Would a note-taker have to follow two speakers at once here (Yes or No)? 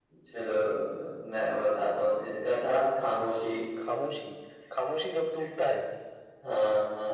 No